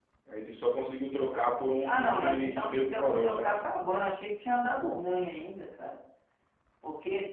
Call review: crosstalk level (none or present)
present